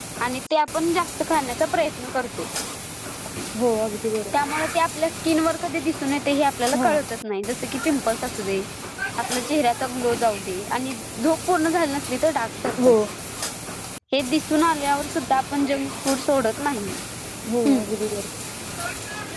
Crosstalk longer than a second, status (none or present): none